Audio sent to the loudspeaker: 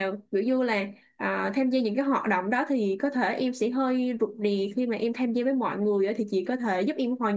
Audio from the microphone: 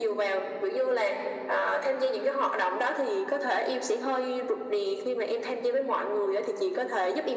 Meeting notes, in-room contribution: none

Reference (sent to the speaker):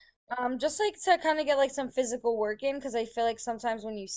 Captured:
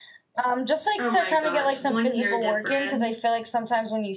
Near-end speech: present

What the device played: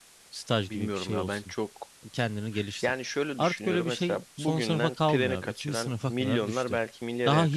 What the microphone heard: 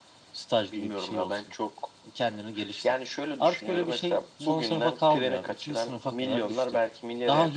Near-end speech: none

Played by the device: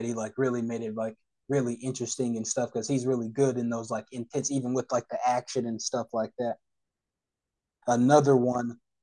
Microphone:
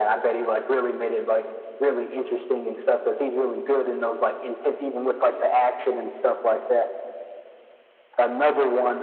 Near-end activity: none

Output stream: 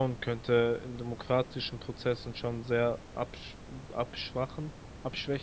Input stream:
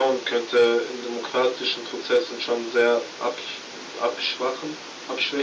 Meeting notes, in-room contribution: none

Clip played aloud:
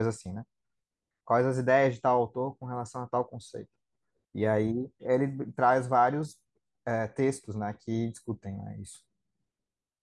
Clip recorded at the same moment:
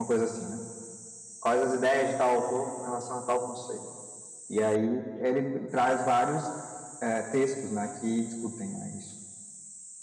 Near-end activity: none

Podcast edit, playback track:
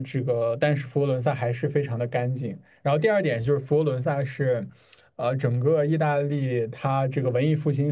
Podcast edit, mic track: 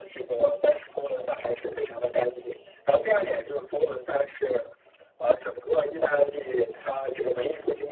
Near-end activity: none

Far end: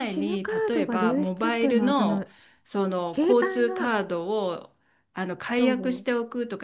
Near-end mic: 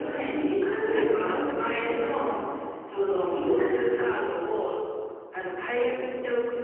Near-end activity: present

